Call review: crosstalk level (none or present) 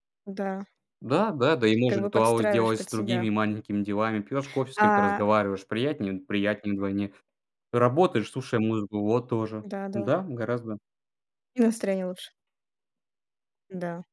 present